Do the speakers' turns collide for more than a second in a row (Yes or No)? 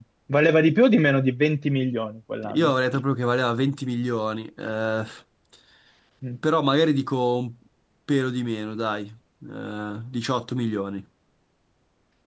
No